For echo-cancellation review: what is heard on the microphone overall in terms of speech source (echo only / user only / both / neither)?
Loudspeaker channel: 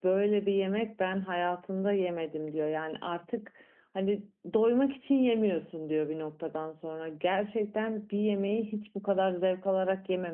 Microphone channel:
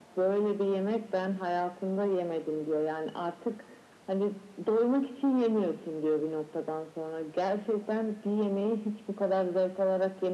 echo only